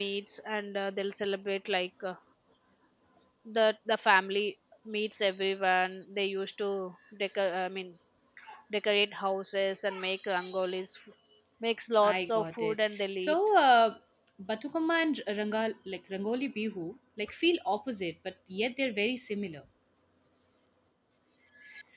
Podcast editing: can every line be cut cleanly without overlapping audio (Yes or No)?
No